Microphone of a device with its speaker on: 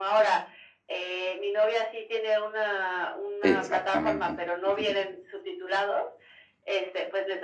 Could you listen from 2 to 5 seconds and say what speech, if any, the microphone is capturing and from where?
both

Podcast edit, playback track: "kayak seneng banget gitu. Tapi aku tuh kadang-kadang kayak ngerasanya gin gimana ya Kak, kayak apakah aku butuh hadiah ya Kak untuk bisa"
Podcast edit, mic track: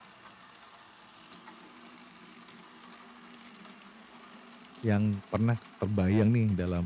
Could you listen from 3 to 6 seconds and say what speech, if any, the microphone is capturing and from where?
user only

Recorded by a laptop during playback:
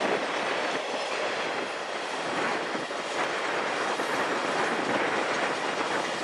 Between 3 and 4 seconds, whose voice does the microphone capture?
neither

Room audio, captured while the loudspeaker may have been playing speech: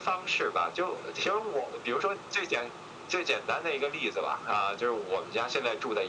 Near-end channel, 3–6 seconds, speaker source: echo only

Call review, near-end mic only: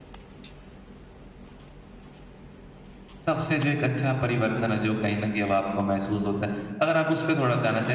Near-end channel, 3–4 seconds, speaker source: user only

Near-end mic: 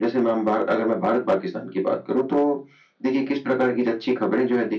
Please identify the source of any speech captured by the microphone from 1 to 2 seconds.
echo only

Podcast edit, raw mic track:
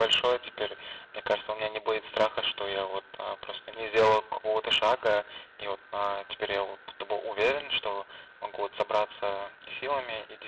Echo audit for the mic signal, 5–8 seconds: echo only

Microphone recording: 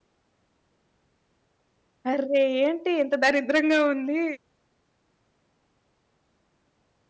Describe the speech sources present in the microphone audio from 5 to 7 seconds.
neither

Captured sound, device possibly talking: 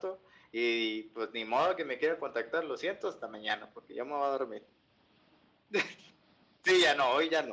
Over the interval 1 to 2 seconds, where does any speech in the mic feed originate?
echo only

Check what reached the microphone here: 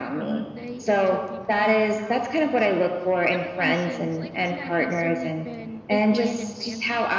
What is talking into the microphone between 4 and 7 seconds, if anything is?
both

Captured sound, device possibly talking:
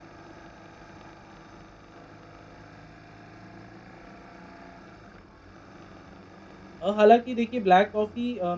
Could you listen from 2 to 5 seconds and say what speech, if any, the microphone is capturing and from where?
neither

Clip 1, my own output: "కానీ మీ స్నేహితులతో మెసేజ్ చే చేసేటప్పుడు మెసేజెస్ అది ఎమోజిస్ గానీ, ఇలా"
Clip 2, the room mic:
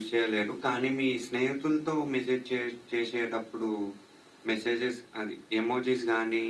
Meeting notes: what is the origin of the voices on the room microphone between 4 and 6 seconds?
echo only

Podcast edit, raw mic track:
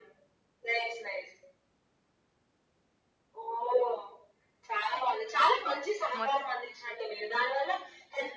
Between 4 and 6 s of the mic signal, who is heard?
echo only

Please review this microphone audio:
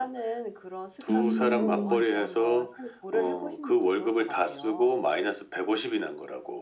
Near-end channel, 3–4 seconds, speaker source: echo only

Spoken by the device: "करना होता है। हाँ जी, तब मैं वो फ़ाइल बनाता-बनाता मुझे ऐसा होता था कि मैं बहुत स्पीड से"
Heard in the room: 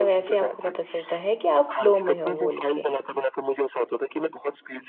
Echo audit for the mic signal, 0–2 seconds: both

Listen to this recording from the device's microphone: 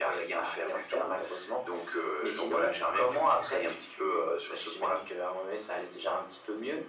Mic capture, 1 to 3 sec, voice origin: echo only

